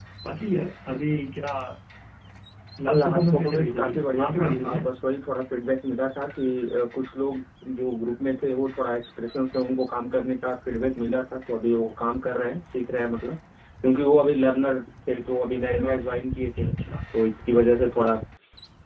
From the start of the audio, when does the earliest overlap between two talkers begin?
2.9 s

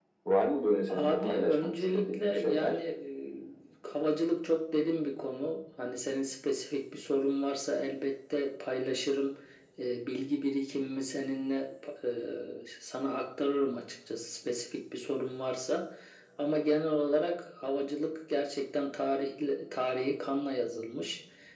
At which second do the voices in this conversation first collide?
0.9 s

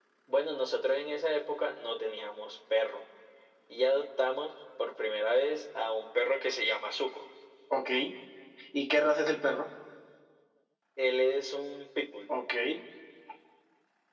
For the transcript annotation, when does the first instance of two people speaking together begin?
none

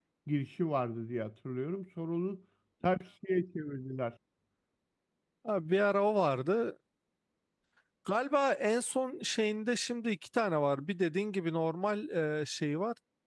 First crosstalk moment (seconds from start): none

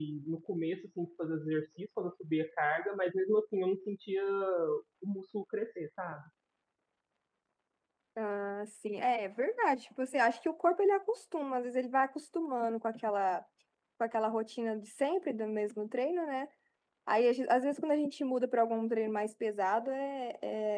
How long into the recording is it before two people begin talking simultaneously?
none

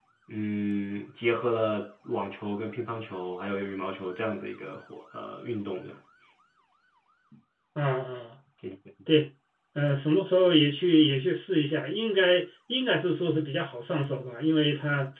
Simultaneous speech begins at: none

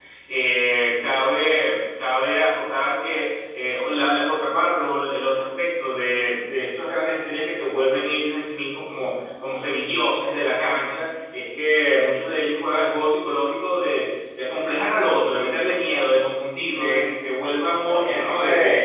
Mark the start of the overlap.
16.8 s

